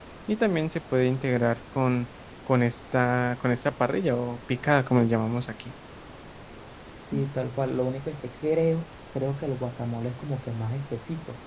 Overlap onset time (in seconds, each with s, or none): none